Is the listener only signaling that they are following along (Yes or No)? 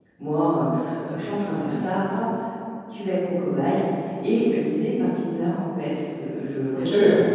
Yes